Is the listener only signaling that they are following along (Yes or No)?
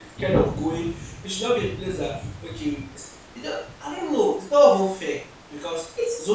Yes